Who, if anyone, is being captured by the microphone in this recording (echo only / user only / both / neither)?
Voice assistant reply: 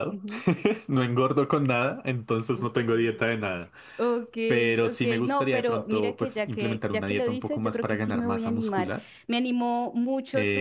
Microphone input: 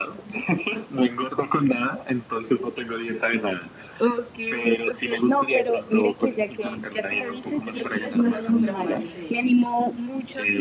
both